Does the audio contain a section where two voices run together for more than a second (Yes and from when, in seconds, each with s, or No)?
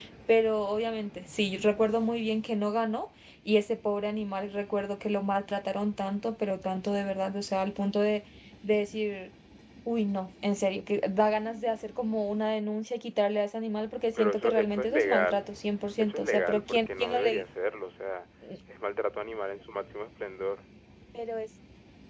Yes, from 14.2 s